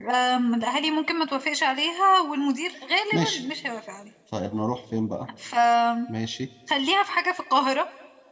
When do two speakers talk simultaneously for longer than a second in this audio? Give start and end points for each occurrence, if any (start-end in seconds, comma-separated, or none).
none